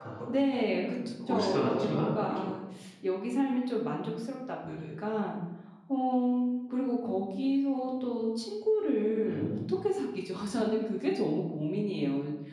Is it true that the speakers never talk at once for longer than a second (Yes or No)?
No